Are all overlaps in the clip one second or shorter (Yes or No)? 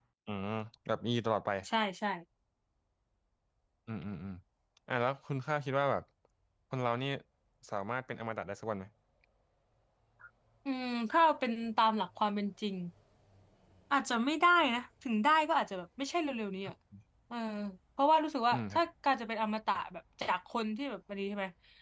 Yes